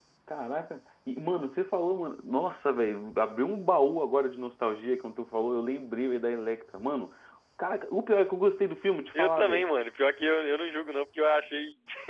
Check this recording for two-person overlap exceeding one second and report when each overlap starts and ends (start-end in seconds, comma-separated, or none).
none